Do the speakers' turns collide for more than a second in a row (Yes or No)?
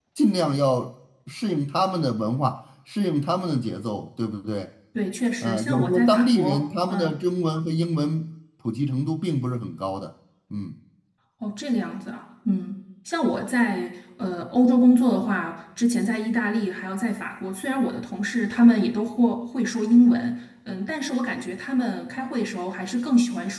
Yes